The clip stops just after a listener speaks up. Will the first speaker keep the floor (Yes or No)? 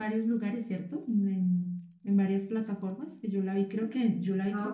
No